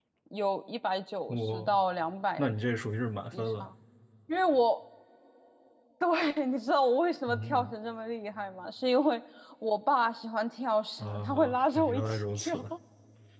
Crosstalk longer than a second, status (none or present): present